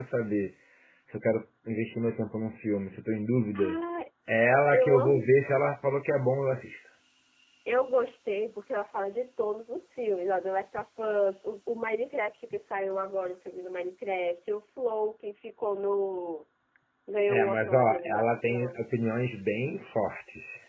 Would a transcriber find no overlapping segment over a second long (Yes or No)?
No